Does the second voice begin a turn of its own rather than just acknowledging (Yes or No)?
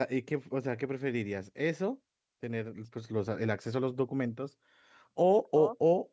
No